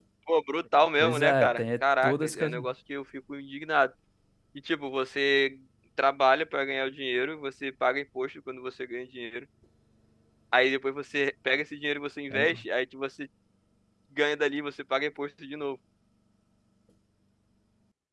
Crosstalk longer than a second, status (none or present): present